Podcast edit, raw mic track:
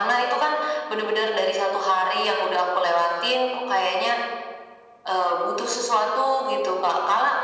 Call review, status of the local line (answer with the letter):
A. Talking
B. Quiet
B